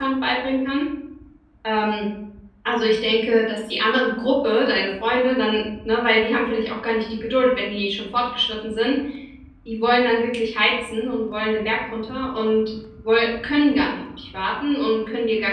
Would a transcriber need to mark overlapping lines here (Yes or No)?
No